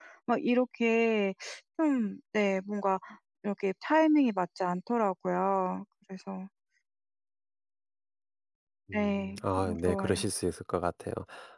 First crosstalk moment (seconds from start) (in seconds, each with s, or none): 8.9 s